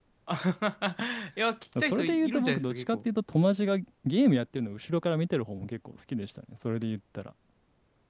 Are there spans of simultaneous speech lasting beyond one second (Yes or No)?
Yes